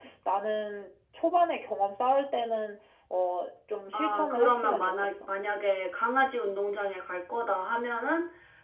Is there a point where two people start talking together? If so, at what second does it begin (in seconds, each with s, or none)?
3.9 s